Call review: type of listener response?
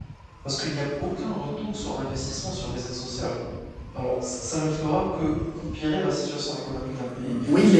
taking over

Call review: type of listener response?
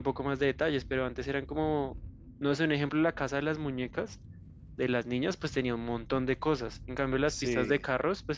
listening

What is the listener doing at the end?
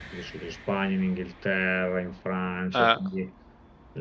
listening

